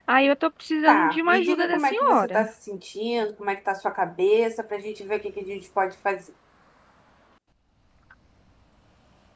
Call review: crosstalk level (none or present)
present